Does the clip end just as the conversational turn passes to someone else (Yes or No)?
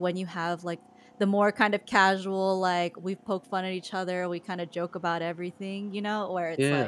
No